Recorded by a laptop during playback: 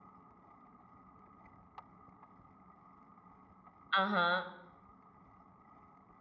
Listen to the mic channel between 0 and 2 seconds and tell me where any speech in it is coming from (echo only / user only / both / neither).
neither